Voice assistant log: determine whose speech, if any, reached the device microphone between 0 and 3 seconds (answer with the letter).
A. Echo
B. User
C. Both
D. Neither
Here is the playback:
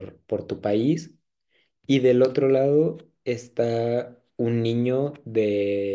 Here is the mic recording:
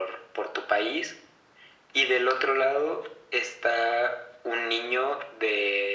A